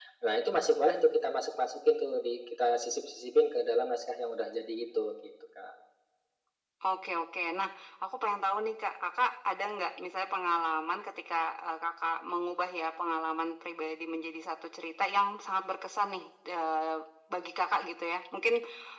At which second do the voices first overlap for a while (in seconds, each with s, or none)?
none